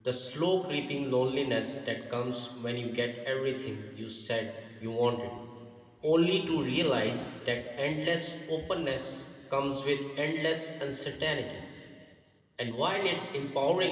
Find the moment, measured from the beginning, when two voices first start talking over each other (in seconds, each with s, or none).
none